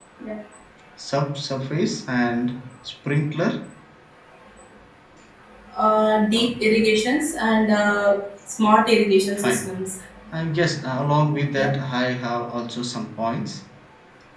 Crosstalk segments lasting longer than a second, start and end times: none

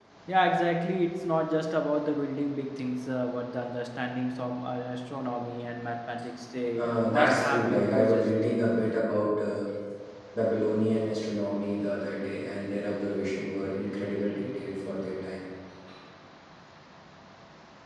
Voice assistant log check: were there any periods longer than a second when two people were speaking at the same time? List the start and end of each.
6.8-8.3

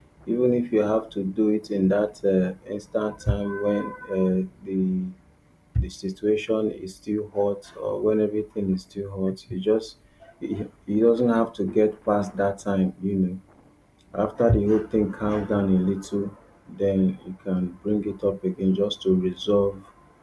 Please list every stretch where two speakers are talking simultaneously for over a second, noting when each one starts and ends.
none

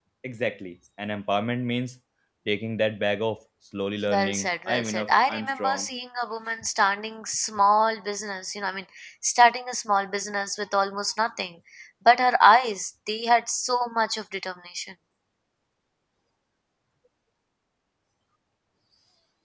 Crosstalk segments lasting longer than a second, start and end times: 4.1-5.9

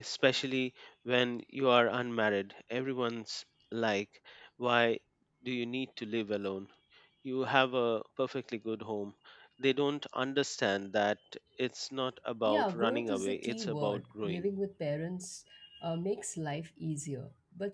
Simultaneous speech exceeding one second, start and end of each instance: 12.4-14.4

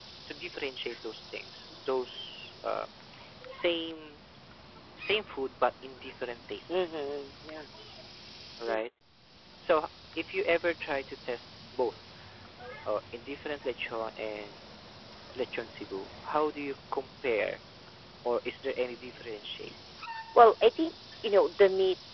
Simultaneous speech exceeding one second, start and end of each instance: none

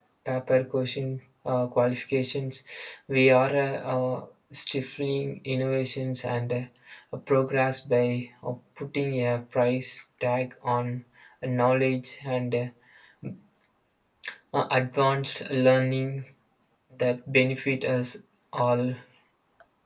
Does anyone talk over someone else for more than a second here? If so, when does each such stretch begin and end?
none

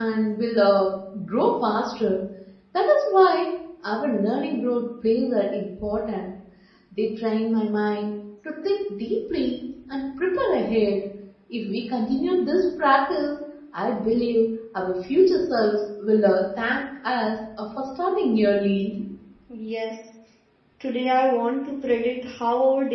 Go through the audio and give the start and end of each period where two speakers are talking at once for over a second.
none

